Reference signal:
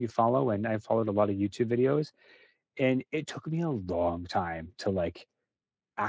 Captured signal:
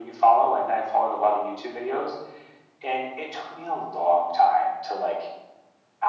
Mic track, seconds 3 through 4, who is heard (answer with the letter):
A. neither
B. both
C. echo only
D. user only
C